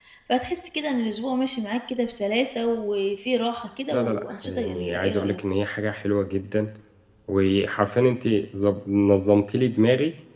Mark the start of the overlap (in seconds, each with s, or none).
3.9 s